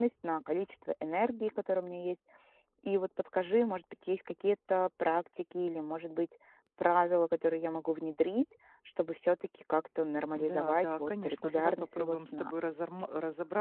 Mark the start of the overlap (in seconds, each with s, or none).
10.3 s